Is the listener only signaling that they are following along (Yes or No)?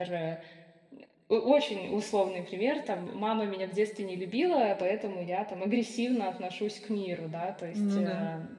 Yes